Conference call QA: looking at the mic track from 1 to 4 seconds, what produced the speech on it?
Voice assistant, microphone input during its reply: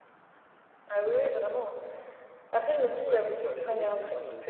both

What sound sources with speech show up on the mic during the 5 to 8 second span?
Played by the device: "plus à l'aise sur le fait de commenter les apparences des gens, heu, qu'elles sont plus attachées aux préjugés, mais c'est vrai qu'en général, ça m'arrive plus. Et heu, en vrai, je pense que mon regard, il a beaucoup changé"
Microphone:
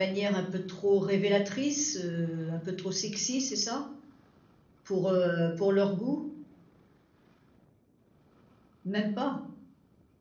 user only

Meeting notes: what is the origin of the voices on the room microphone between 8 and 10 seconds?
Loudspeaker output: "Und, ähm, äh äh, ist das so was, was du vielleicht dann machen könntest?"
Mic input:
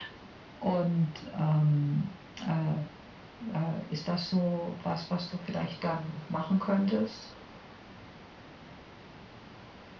neither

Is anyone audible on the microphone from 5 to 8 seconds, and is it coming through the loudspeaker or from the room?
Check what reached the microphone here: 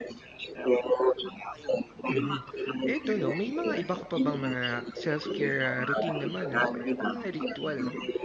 both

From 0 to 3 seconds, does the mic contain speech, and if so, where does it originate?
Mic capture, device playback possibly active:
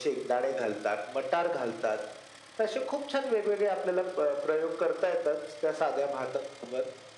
echo only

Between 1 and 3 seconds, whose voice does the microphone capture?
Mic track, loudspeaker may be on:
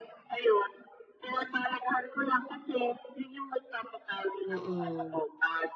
echo only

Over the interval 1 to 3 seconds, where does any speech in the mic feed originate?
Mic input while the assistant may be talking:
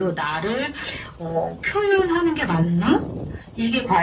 echo only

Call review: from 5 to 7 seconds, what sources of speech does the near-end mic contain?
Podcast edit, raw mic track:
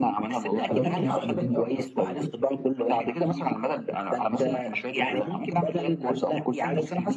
echo only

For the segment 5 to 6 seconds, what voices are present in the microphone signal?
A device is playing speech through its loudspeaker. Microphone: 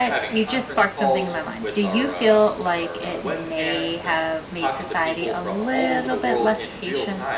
both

